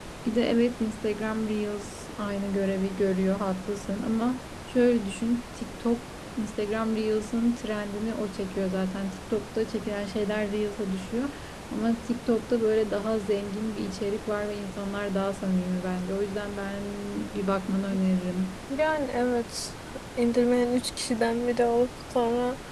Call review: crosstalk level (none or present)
none